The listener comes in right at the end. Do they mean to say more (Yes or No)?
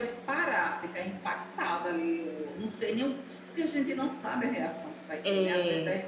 No